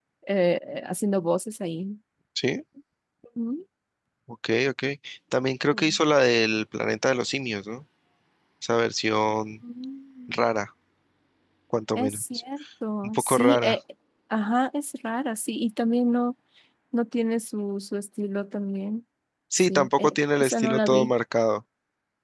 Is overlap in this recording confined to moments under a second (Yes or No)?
No